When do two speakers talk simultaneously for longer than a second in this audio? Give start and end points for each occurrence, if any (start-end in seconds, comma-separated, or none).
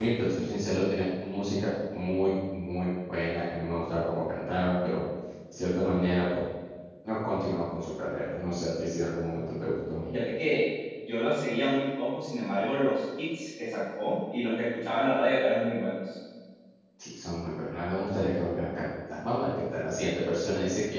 none